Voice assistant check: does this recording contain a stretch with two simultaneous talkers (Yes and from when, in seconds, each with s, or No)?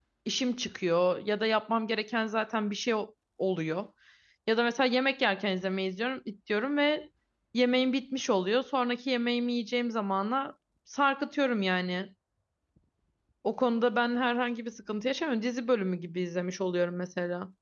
No